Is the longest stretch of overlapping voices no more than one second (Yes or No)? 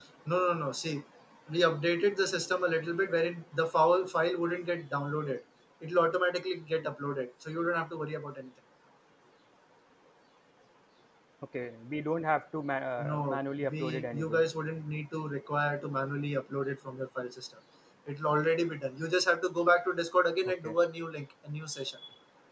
No